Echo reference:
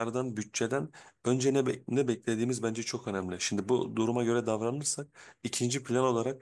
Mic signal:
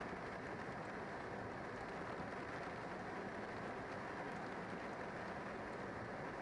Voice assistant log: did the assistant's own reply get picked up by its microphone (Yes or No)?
No